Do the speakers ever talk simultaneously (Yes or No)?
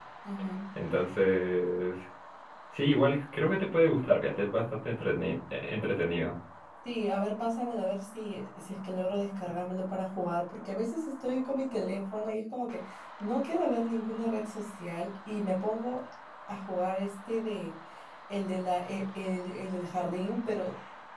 No